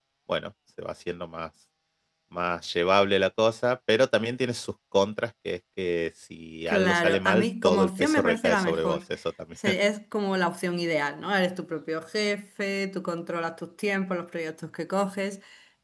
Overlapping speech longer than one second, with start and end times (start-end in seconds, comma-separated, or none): 6.7-9.0